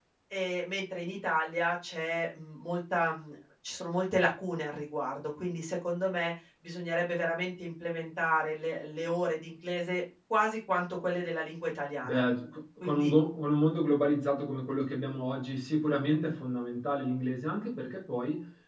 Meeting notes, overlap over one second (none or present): none